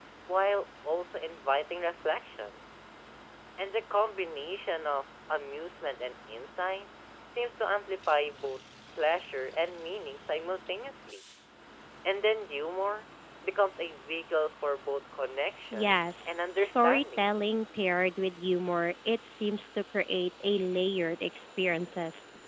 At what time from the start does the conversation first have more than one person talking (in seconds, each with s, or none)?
15.7 s